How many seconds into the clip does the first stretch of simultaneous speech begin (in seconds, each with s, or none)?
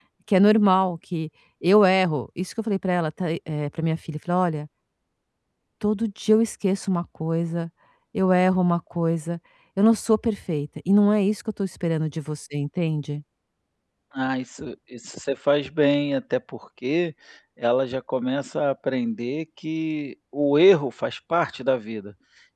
none